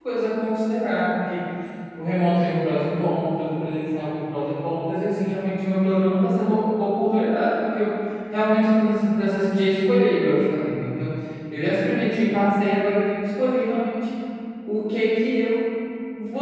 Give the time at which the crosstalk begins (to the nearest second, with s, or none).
none